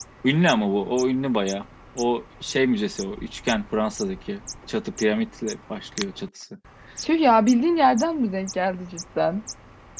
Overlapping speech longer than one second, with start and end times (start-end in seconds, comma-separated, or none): none